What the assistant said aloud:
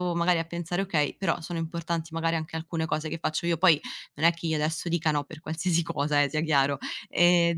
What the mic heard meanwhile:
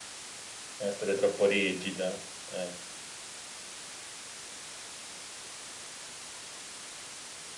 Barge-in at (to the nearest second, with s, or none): 1 s